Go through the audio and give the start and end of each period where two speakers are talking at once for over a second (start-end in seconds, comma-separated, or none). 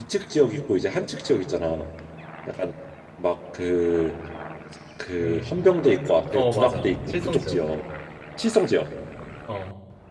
6.3-7.6